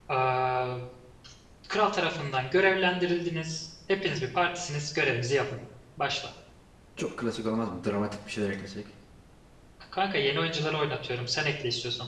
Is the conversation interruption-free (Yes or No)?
Yes